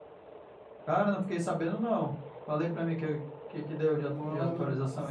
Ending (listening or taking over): taking over